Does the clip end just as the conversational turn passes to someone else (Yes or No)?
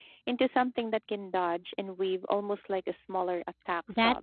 Yes